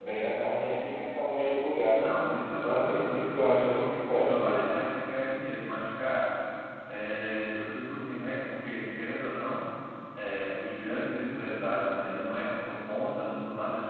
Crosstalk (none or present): present